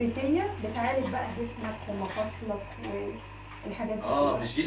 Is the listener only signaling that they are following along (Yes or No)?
No